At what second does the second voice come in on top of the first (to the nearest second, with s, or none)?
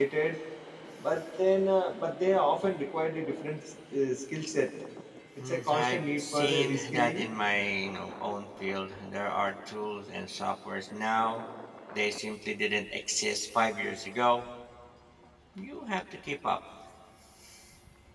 5 s